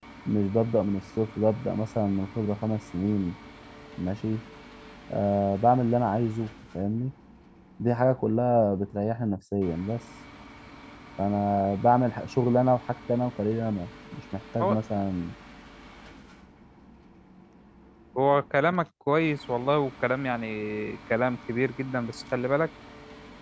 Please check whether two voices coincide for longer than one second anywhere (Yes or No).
No